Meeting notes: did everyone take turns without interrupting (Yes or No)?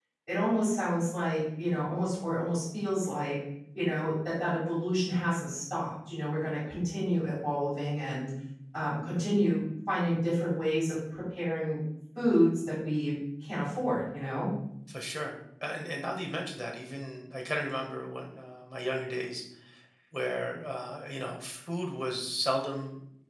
Yes